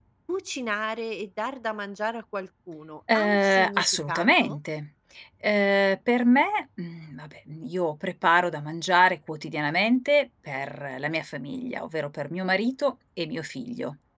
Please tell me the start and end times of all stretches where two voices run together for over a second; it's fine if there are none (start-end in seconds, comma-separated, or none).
3.1-4.6